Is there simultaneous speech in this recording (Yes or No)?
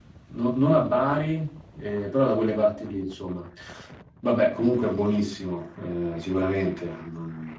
No